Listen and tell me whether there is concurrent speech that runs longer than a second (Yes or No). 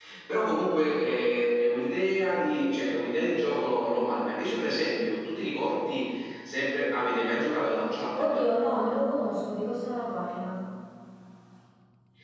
No